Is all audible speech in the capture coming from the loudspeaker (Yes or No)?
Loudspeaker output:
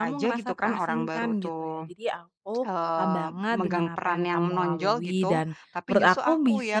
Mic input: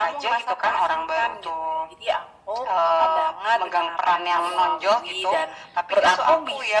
Yes